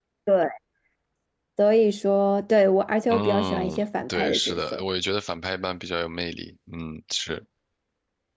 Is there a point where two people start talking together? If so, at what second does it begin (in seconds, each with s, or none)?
3.1 s